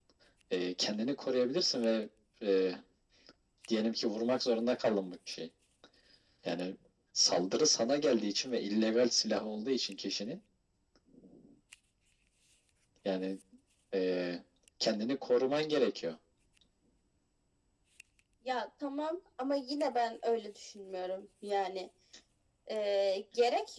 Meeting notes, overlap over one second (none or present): none